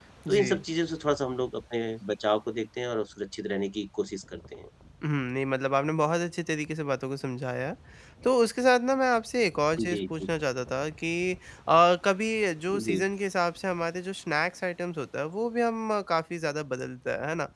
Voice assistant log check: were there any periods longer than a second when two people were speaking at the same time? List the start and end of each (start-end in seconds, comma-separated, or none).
none